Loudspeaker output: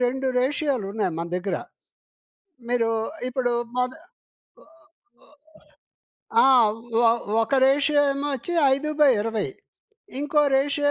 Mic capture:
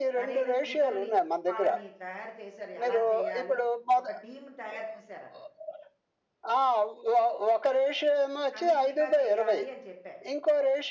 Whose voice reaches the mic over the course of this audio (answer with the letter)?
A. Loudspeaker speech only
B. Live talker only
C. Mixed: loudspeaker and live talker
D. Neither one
C